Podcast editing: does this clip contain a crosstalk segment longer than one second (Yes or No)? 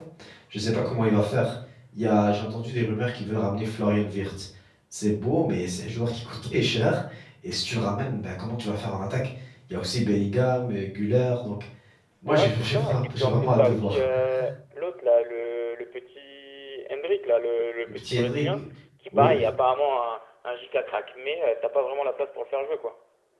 Yes